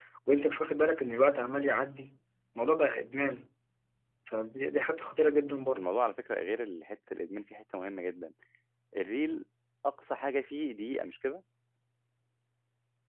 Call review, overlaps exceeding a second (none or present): none